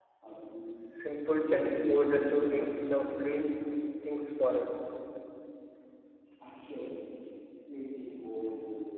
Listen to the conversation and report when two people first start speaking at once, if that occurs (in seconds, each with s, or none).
1.4 s